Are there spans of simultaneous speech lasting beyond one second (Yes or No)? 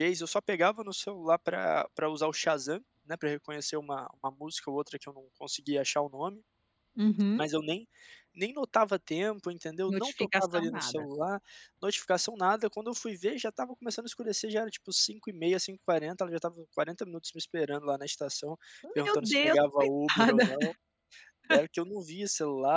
Yes